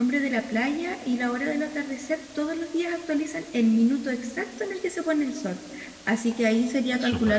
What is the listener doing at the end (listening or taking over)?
listening